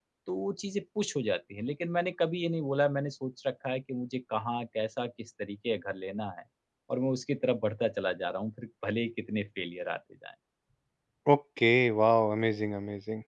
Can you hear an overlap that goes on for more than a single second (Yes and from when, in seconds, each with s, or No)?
No